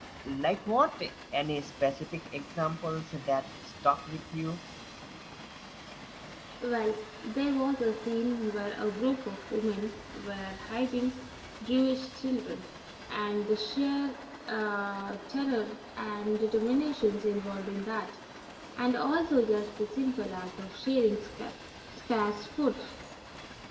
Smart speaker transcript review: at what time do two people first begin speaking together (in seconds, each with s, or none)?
none